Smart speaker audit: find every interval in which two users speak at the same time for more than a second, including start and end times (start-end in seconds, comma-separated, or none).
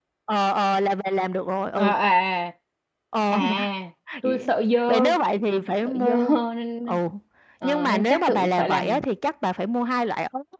7.6-9.0